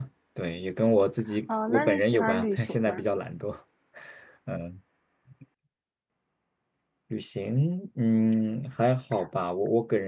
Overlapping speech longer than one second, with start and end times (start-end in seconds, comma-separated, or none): 1.7-3.0